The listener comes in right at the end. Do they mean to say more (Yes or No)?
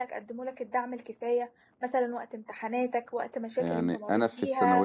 Yes